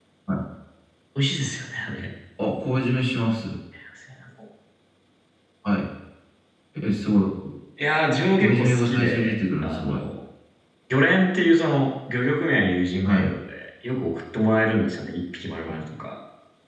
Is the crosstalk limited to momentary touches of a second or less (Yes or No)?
No